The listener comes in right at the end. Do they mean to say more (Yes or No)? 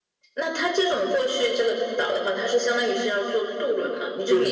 Yes